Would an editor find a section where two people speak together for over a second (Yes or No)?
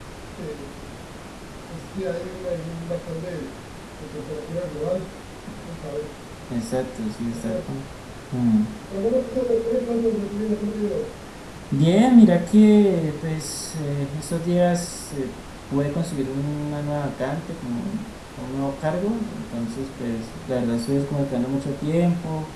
No